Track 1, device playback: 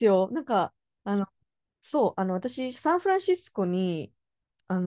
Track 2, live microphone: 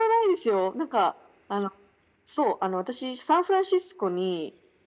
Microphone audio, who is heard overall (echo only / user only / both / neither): echo only